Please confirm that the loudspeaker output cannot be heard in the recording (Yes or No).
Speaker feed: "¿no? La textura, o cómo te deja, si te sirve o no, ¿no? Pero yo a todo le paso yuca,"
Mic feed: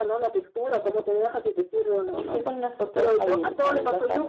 No